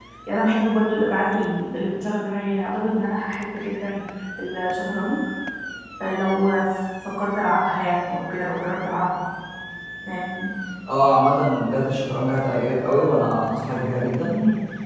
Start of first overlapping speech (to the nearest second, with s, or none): none